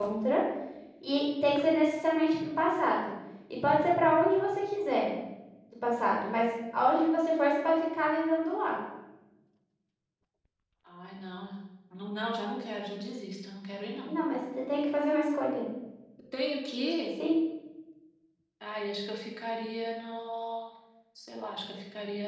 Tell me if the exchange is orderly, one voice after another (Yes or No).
Yes